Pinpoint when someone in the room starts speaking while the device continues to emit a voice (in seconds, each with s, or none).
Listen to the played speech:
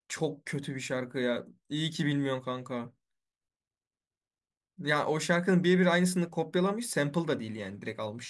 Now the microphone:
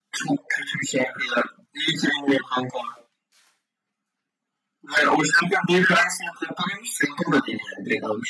none